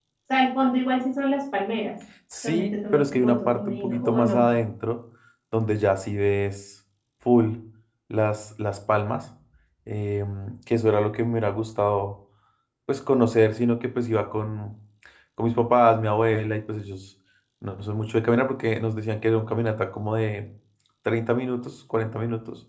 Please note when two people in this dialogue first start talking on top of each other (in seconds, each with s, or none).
2.3 s